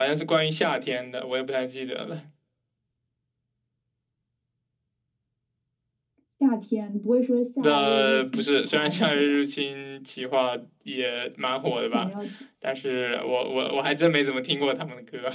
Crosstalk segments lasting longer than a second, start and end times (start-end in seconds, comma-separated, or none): 7.6-9.3